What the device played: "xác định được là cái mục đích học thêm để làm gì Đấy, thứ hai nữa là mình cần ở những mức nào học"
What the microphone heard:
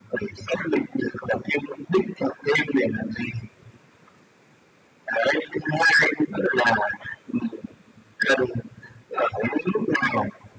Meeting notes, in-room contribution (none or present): none